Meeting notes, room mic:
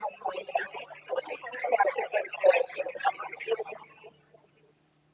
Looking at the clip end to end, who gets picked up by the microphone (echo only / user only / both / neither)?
echo only